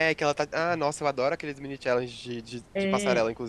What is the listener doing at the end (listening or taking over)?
taking over